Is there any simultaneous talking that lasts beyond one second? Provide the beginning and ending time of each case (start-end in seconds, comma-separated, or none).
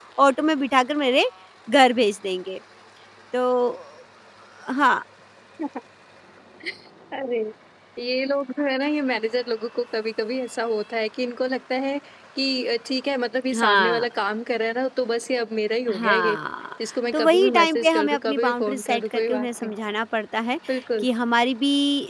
17.1-19.7